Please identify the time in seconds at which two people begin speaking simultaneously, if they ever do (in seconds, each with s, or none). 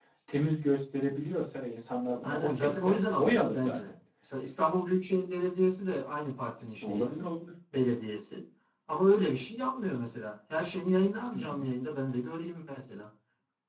2.2 s